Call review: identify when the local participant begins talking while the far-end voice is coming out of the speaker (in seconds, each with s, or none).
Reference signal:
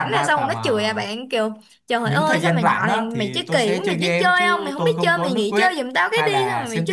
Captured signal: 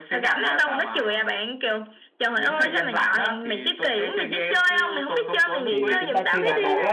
5.7 s